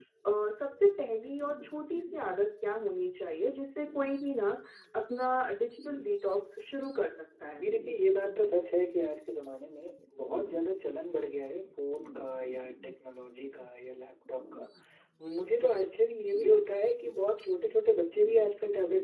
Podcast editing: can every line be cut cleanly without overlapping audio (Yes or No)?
Yes